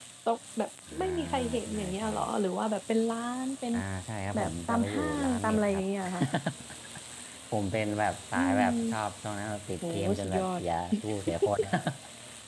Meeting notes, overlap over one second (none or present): present